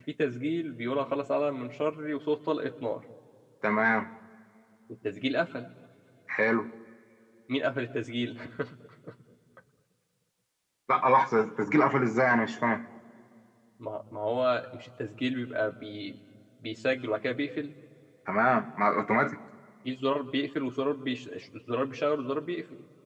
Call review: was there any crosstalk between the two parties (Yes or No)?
No